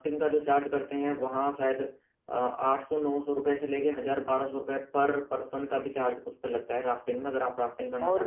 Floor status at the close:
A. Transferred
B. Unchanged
A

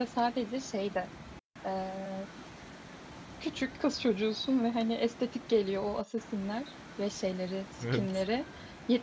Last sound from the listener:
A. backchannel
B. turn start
A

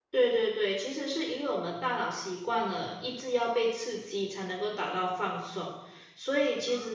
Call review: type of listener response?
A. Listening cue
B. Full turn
A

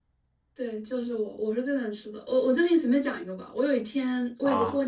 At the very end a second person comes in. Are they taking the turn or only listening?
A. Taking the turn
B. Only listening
B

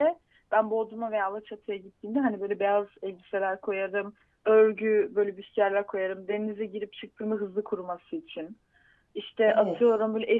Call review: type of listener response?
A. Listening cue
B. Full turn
A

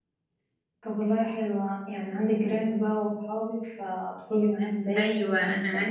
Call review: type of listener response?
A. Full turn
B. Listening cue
A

